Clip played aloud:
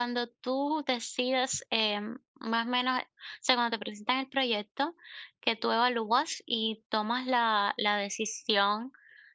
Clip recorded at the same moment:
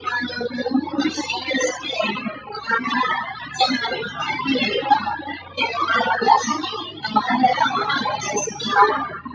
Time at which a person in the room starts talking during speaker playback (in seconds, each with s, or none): none